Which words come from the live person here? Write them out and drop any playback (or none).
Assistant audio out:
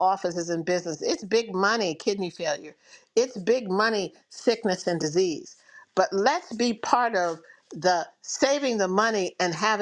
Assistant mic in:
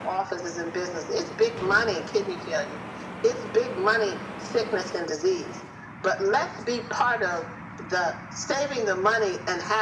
none